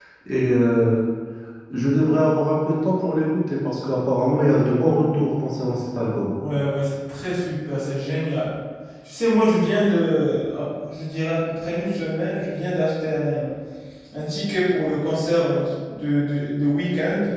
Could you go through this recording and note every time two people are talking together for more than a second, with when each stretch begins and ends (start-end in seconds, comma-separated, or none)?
none